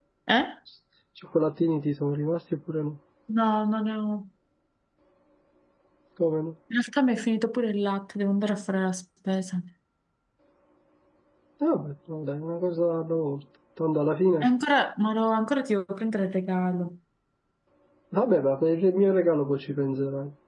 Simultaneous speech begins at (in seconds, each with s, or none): none